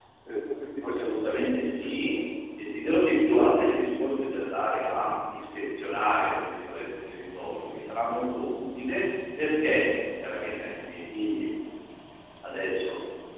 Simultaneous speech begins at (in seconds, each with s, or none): 0.8 s